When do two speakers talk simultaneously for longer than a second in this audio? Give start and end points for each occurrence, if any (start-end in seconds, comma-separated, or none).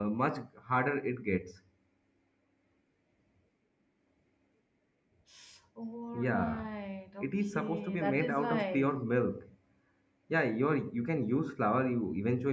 7.2-8.9